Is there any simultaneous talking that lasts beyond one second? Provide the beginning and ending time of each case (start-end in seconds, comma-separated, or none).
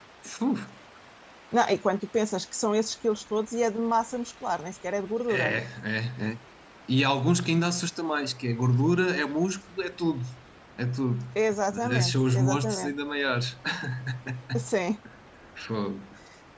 11.7-12.9